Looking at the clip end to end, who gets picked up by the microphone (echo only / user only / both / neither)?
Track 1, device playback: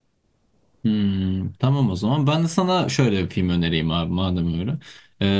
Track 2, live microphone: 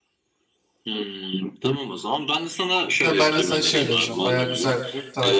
both